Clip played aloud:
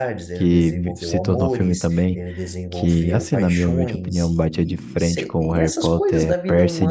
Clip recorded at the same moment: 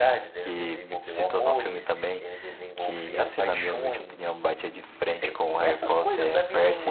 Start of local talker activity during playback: none

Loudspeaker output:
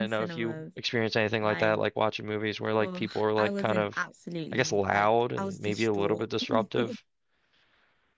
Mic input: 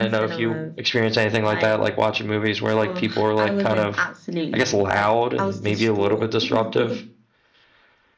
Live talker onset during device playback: none

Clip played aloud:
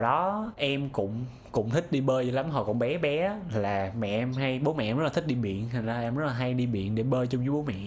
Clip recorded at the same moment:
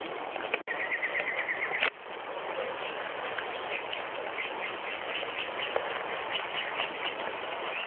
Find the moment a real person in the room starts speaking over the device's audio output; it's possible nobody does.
none

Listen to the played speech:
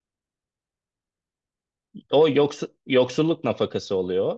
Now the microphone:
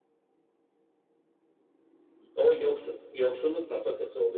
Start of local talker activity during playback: none

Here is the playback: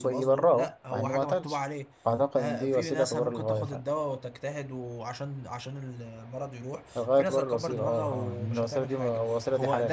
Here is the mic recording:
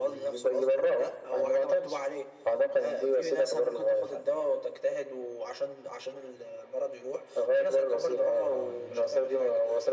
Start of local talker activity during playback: none

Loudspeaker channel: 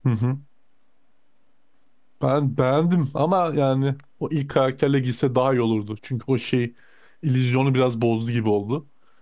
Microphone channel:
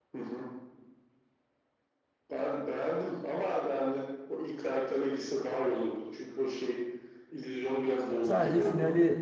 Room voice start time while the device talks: 8.2 s

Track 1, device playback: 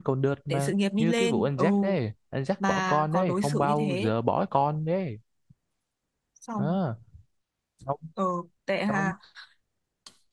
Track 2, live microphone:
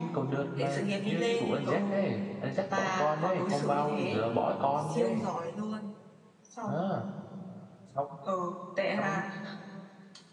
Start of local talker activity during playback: 4.8 s

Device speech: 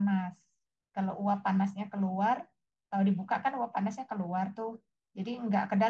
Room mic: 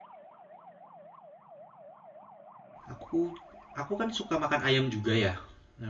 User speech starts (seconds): 2.9 s

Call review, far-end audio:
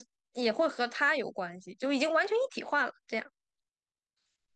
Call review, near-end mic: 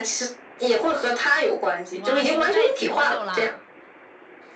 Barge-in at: 1.9 s

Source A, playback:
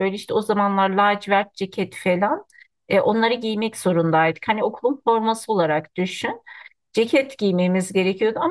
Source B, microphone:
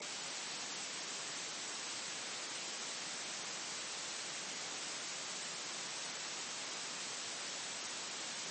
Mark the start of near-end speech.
none

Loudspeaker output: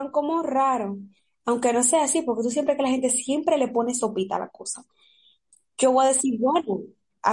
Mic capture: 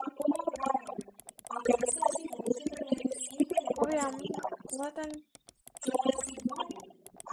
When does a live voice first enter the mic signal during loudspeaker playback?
3.8 s

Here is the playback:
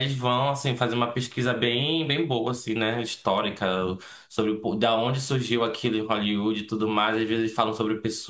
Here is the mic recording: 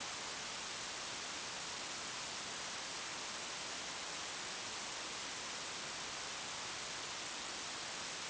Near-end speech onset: none

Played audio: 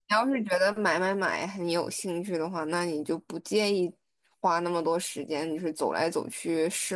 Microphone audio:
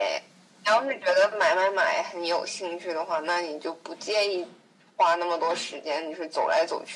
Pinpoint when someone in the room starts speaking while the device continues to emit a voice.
none

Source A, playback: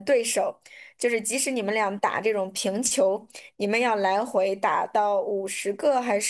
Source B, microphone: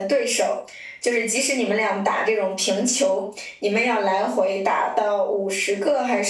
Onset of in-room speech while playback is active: none

